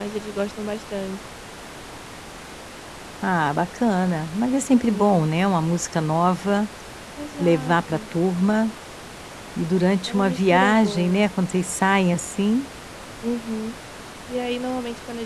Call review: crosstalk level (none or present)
present